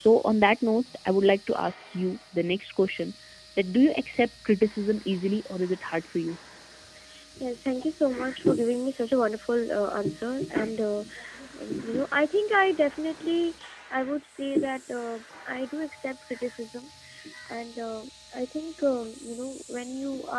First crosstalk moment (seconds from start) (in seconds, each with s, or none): none